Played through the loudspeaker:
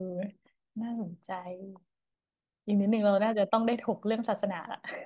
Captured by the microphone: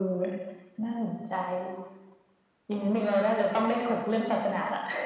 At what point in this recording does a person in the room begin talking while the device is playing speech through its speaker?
none

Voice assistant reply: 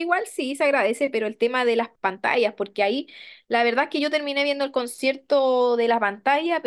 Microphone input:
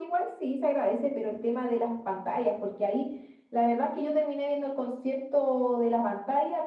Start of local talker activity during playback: none

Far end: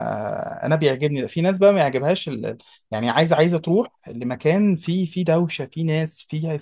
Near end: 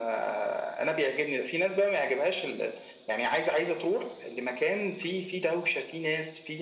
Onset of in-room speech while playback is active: none

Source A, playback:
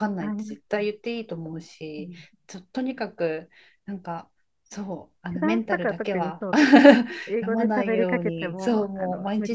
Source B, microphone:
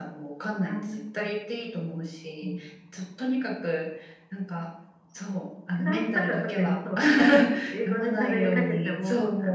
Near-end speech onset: none

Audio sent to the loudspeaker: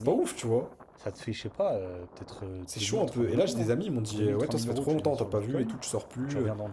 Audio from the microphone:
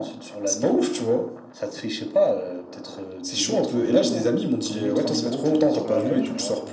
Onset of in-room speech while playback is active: 6 s

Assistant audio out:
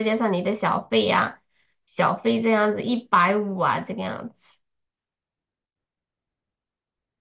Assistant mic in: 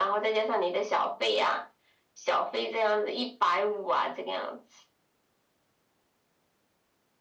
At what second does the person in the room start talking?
none

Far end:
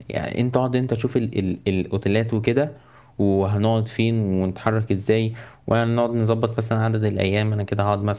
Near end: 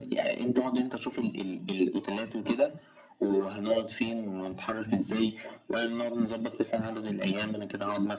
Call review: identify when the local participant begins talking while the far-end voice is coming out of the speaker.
none

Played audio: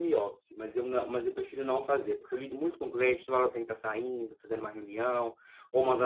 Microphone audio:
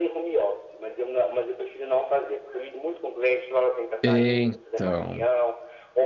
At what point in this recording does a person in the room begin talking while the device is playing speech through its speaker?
4 s

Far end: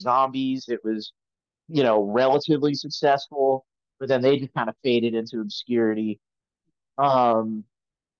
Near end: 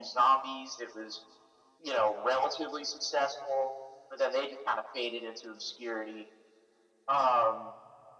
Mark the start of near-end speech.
none

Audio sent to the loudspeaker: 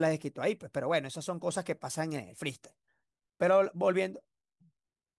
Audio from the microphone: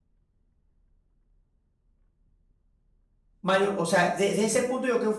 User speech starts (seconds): 3 s

